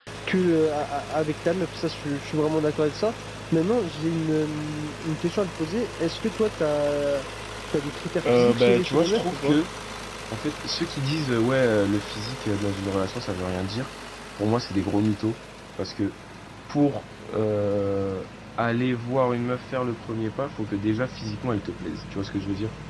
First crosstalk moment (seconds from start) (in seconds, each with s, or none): 8.3 s